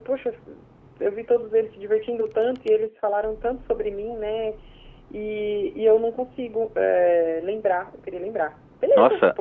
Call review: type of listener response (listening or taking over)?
taking over